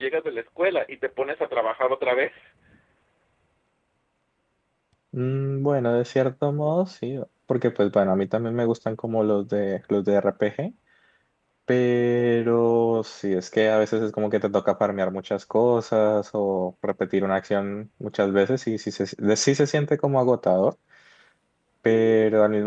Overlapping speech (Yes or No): No